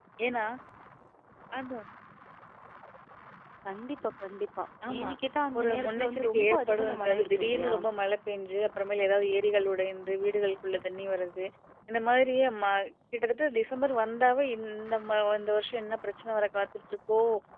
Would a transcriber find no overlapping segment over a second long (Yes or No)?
No